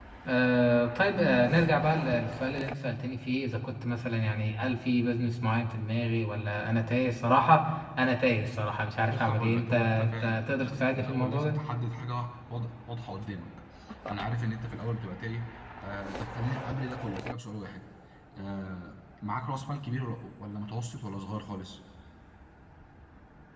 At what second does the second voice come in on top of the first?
9 s

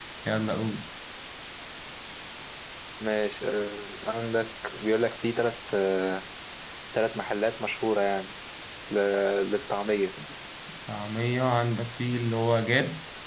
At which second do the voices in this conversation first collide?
none

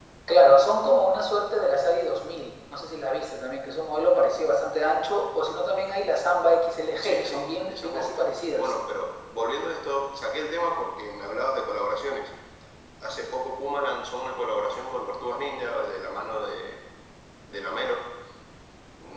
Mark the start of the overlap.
7 s

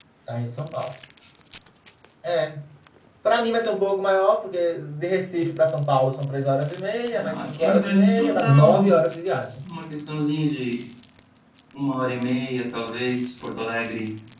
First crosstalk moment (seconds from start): 7 s

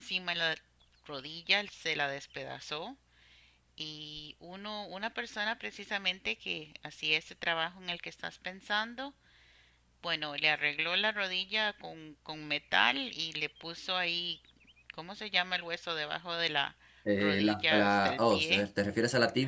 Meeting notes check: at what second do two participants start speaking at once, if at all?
17 s

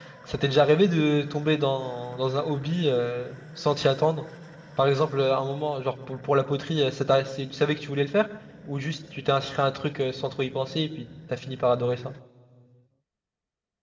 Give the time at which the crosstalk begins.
none

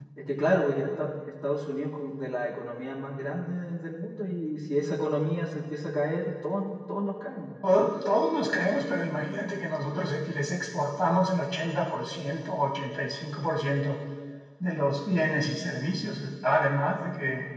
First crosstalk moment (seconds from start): none

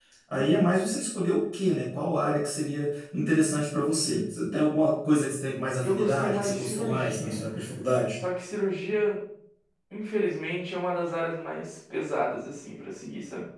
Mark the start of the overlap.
6 s

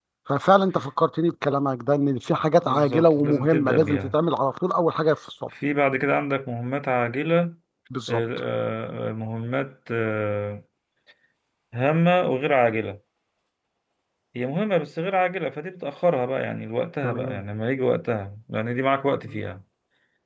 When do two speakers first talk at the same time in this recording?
3 s

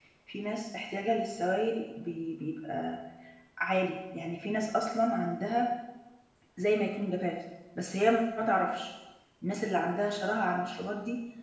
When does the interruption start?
none

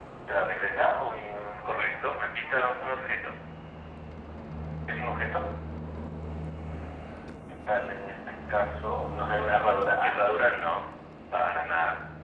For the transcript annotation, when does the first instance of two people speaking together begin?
2 s

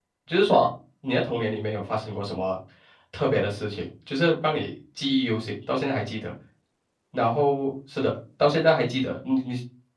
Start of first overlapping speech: none

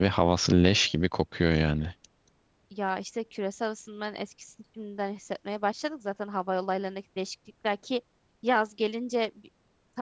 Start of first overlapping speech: none

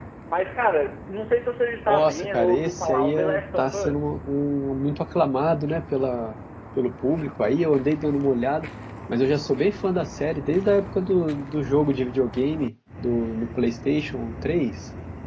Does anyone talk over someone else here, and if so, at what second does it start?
2 s

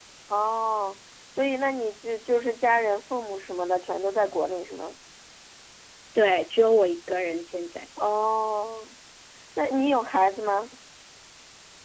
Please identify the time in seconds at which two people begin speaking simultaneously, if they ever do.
none

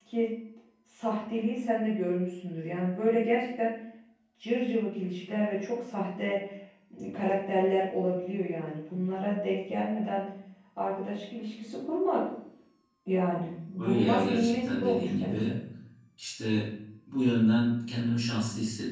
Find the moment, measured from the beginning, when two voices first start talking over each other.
14 s

